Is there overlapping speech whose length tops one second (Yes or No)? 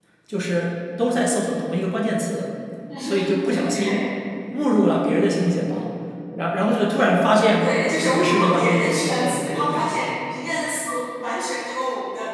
Yes